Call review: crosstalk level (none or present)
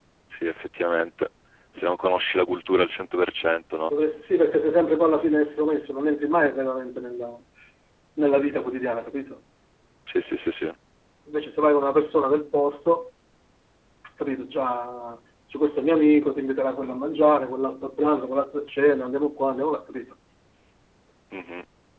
none